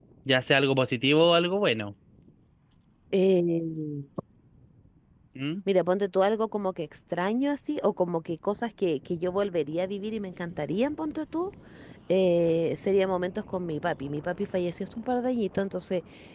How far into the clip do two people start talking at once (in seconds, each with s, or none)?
none